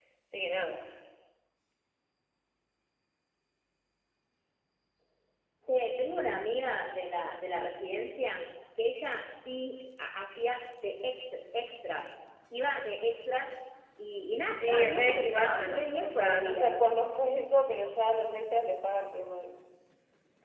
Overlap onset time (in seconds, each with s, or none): 14.6 s